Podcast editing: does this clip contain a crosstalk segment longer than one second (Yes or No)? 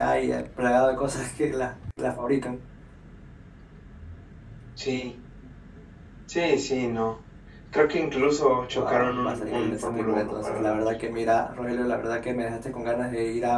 Yes